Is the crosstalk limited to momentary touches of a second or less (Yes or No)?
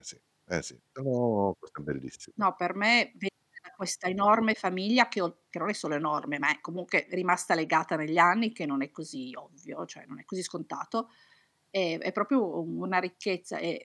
Yes